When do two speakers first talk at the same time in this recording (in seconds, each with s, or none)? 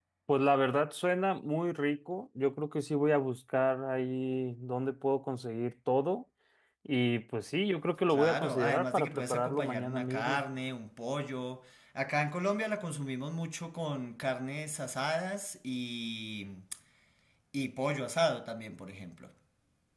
8.1 s